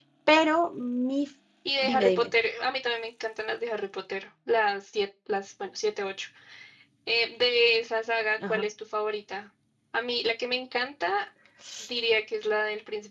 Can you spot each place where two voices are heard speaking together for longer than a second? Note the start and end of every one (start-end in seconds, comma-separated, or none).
none